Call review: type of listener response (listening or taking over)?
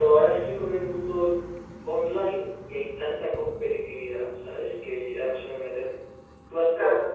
taking over